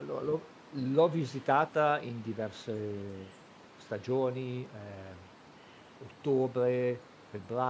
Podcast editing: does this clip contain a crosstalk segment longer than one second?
No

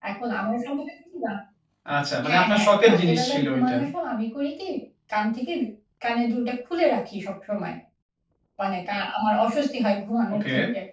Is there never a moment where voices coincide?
No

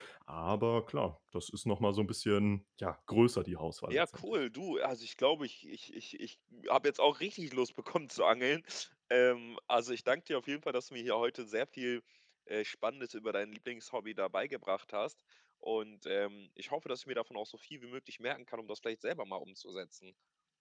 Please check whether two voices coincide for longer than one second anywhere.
No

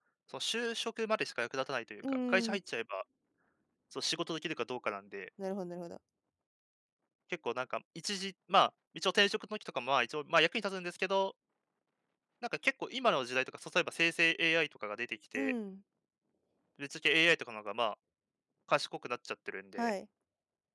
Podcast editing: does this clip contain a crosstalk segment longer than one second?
No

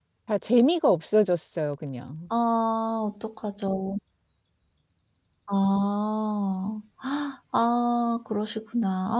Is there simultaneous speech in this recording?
No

